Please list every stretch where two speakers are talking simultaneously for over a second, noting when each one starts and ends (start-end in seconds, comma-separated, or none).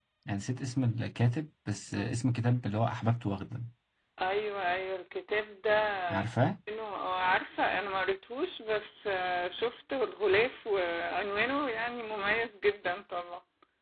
none